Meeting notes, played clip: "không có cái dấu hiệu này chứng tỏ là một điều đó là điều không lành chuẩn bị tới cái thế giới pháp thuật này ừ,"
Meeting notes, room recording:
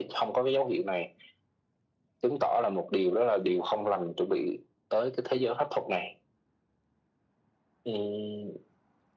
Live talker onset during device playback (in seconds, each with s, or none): none